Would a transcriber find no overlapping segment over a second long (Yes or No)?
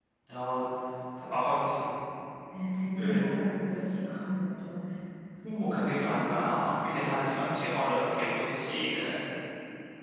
No